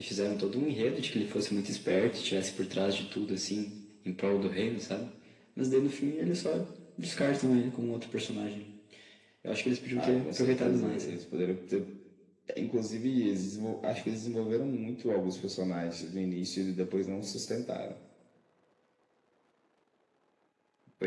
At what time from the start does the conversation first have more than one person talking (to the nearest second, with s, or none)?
10 s